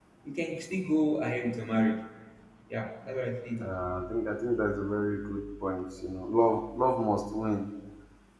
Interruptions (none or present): none